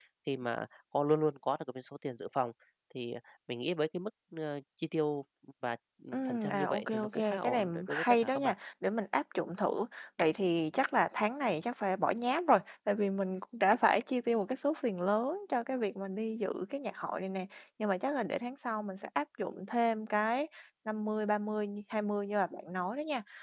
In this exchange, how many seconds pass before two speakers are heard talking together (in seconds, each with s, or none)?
6.1 s